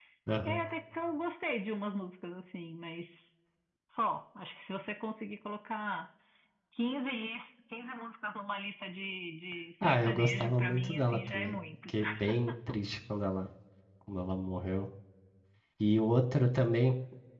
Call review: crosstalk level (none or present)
present